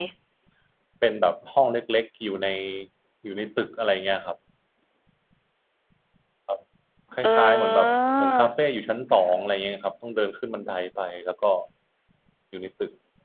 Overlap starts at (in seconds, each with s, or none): 7.2 s